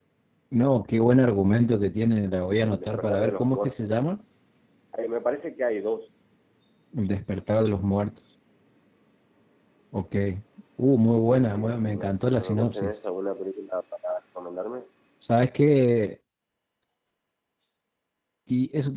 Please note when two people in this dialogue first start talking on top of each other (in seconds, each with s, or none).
2.6 s